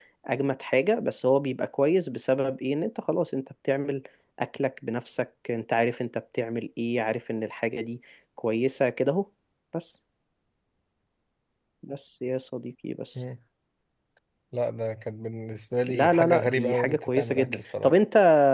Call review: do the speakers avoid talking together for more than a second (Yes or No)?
No